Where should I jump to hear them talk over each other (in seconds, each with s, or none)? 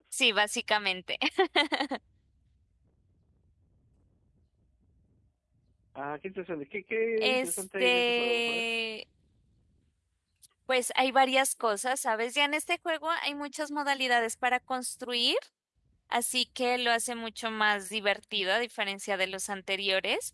7.2 s